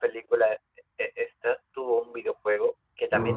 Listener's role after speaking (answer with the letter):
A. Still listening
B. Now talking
A